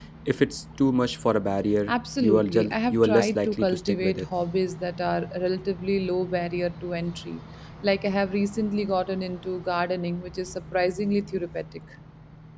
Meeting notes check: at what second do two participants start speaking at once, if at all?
1.9 s

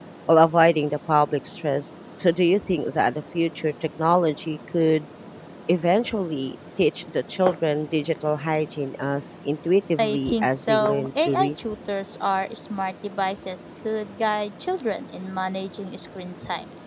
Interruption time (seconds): 10.0 s

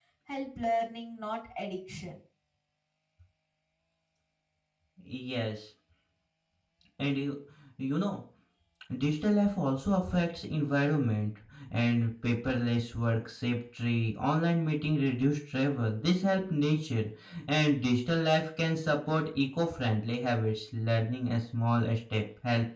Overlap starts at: none

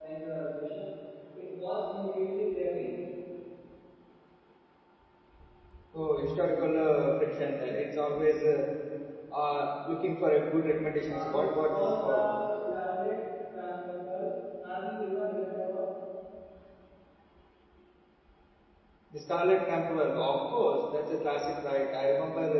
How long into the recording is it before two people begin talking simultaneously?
11.1 s

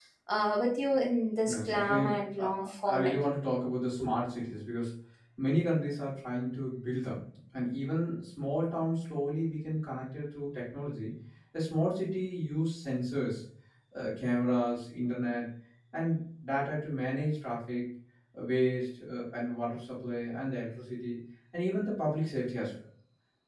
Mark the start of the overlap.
1.4 s

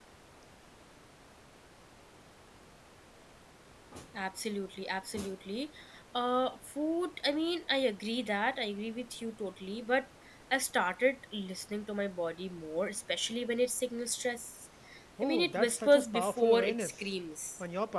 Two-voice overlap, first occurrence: 15.2 s

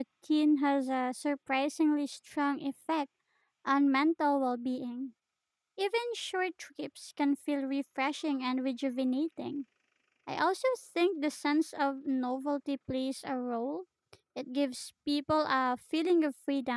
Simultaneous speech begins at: none

